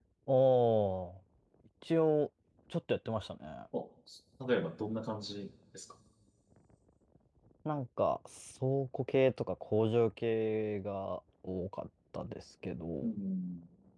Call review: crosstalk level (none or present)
none